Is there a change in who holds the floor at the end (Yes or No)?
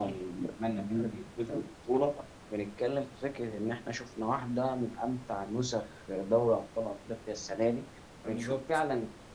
No